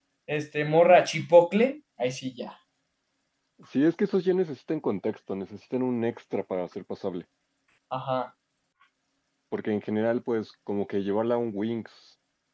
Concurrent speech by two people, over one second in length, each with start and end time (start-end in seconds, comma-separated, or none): none